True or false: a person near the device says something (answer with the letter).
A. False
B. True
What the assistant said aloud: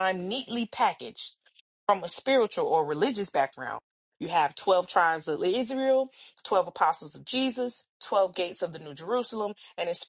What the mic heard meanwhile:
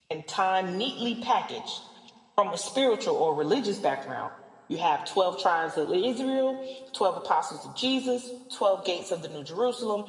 A